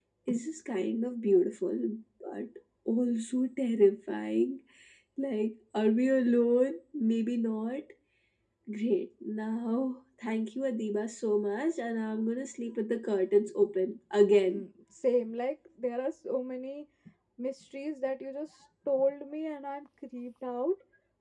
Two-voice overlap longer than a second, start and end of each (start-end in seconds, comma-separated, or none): none